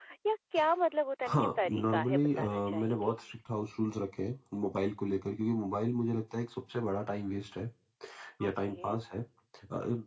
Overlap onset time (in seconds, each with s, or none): 1.3 s